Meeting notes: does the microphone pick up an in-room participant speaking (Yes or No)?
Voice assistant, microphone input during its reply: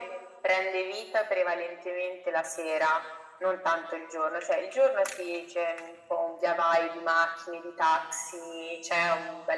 No